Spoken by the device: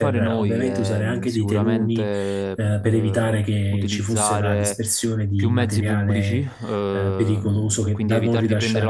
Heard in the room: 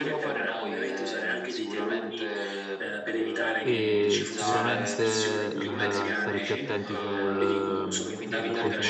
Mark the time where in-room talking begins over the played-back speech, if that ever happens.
4 s

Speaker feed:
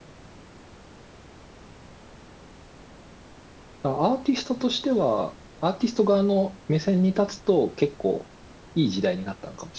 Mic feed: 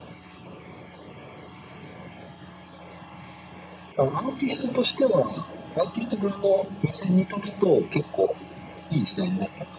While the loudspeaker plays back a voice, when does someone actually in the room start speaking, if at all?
none

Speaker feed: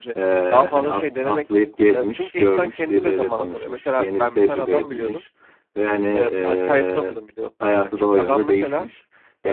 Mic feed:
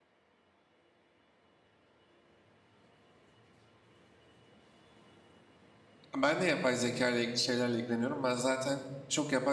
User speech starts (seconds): 6 s

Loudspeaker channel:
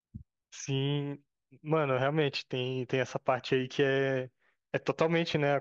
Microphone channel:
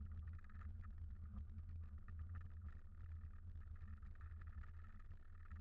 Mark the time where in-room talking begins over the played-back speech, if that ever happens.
none

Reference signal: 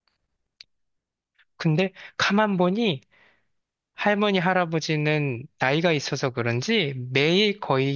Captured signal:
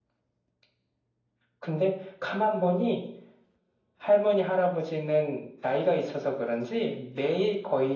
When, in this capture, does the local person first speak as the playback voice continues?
none

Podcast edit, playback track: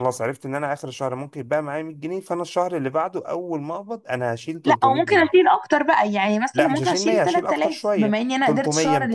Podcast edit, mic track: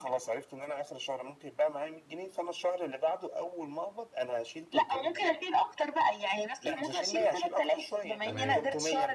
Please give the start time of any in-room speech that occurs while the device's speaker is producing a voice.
8 s

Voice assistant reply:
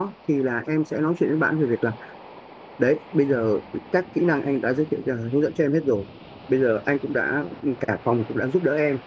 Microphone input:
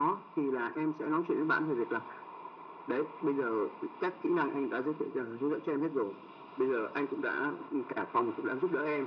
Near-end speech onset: none

